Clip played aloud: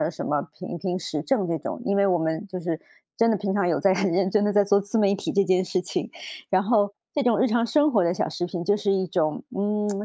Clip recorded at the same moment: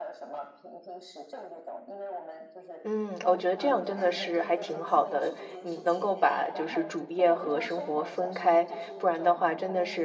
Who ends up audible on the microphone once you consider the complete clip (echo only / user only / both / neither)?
both